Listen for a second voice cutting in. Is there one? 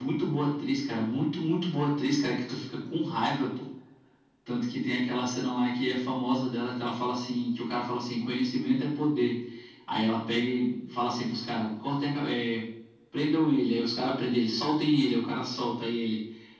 No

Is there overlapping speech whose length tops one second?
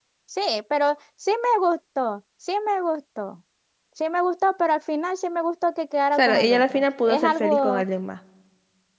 Yes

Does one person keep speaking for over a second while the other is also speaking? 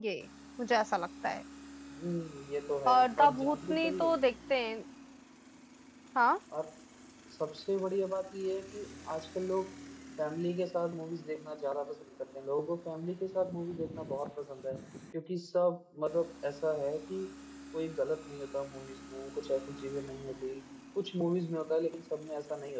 Yes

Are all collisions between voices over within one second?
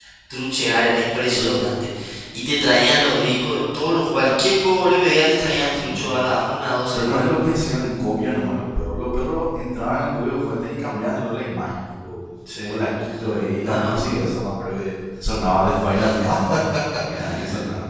Yes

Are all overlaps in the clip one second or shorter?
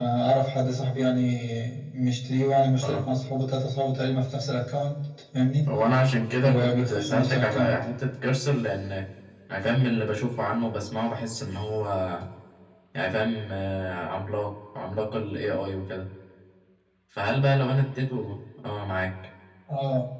No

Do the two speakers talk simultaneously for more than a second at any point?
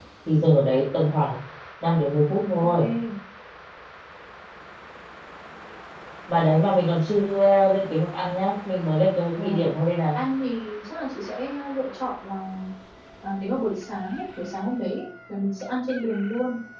No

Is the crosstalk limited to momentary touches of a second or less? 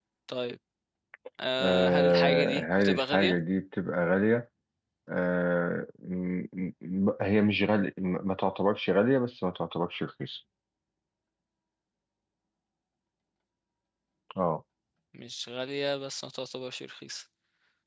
No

